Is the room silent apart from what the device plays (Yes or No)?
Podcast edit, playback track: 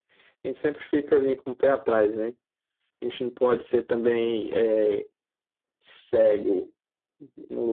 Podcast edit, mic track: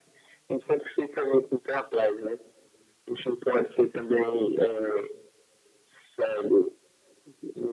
Yes